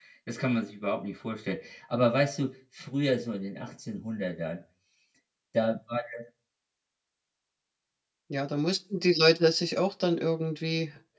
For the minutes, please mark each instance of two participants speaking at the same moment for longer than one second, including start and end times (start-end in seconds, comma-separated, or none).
none